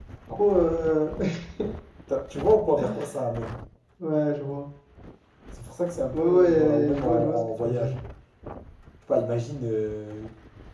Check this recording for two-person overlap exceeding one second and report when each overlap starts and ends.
6.1-7.9

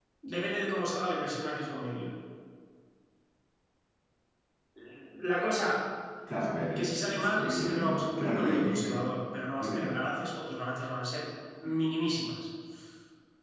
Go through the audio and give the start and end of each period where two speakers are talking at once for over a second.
6.8-8.8

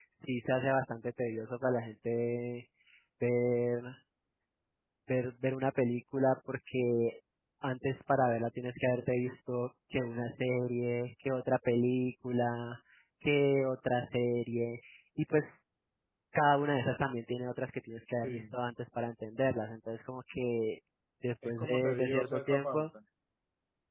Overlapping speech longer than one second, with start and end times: 21.4-22.9

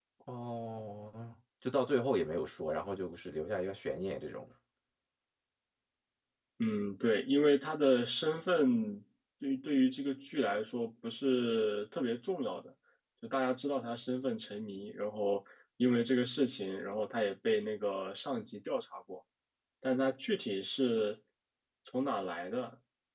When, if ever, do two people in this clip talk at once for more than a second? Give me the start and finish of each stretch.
none

